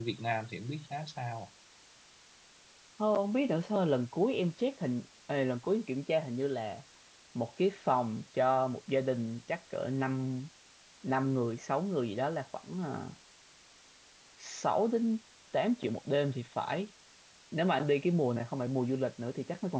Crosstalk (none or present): none